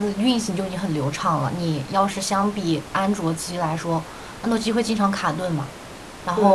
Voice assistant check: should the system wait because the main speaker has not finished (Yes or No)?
No